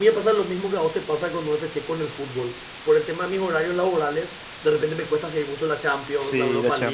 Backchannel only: No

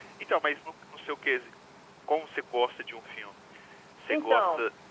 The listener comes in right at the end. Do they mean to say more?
No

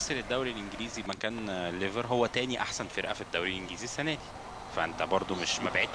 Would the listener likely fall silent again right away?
Yes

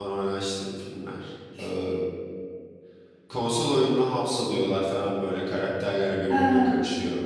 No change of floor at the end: Yes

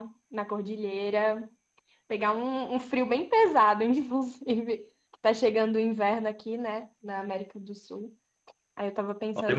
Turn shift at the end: No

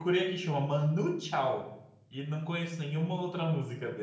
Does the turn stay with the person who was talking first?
No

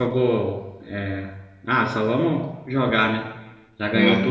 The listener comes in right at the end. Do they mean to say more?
No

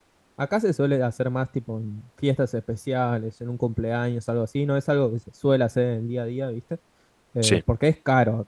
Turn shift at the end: No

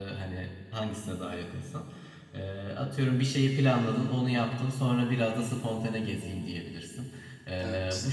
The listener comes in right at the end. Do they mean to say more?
No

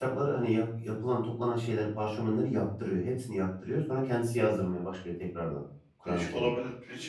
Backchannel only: No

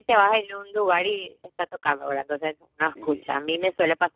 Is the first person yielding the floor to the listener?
No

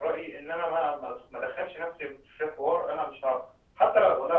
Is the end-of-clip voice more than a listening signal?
No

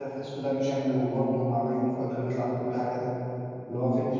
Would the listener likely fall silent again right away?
Yes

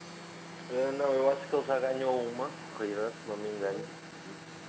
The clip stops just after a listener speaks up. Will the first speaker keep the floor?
Yes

